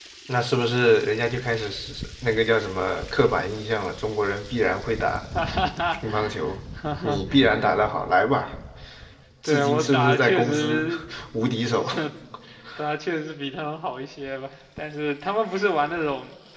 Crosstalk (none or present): present